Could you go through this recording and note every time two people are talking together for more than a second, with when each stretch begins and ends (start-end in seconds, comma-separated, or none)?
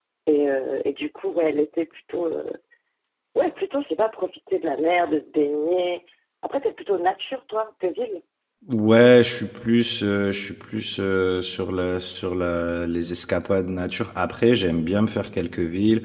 none